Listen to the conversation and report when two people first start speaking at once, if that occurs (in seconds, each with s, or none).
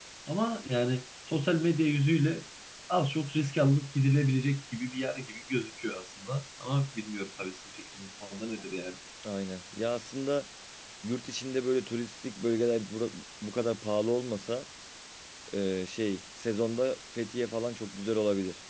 none